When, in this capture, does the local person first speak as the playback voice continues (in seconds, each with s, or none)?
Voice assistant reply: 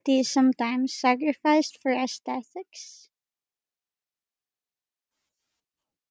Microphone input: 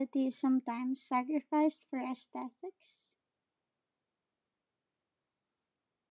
none